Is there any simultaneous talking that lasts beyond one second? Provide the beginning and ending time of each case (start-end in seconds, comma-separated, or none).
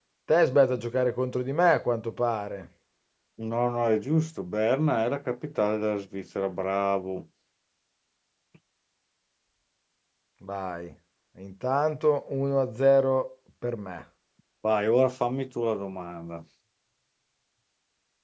none